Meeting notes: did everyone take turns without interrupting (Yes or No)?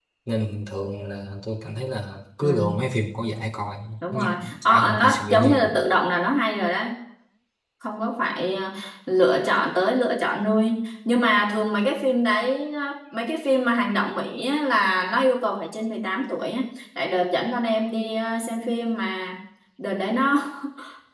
No